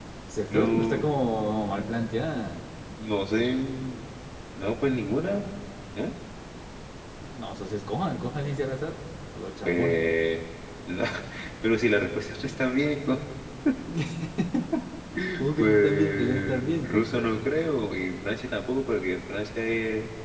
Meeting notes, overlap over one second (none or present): present